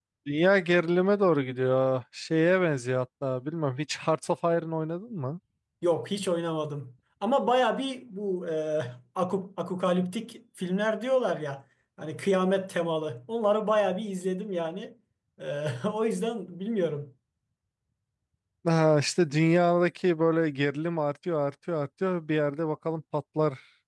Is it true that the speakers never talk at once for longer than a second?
Yes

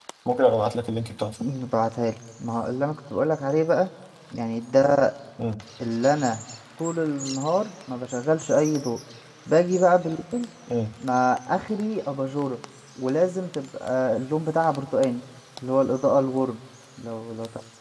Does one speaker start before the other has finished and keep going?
No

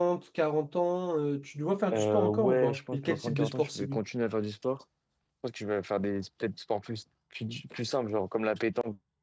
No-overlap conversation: No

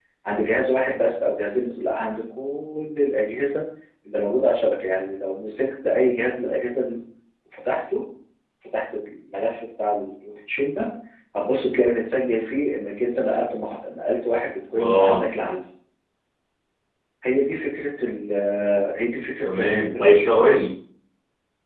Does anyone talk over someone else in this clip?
Yes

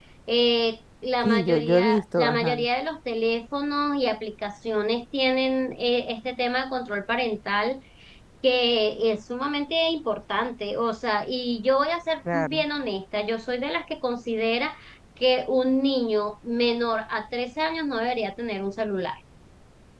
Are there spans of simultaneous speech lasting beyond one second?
Yes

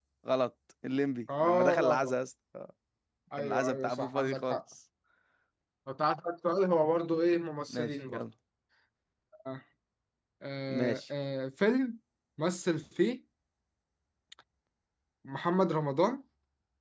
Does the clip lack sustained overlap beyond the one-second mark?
No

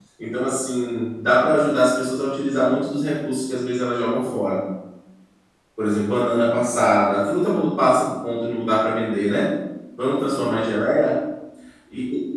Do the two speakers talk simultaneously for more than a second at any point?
No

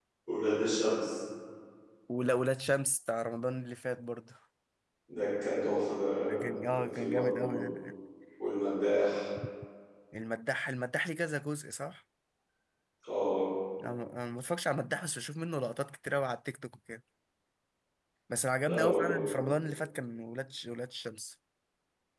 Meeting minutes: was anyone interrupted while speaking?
Yes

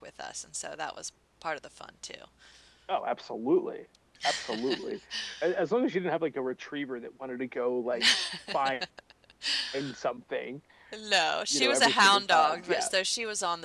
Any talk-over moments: Yes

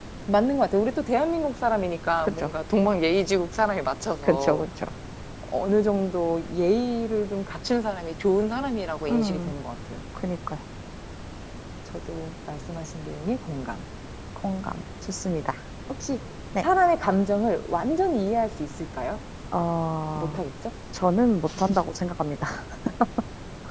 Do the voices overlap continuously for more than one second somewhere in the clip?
No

